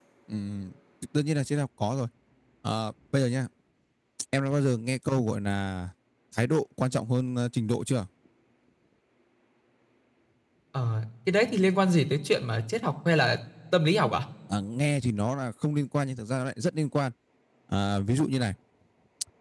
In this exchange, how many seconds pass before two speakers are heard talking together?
none

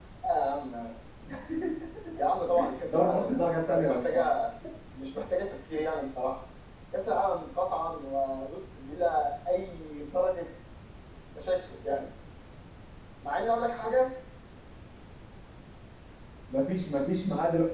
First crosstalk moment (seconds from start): 2.8 s

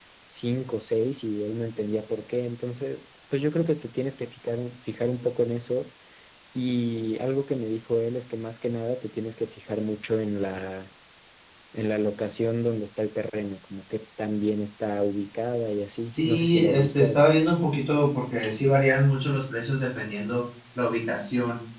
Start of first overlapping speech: 15.9 s

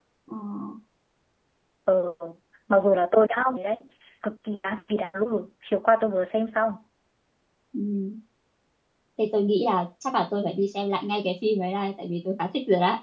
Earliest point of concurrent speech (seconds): none

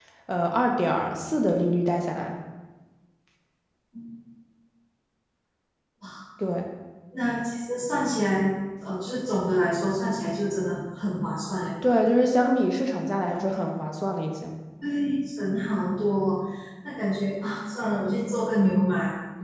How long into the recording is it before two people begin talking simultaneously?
none

